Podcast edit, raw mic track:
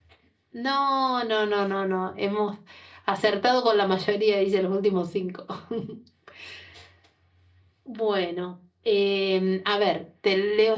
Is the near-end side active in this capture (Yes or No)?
No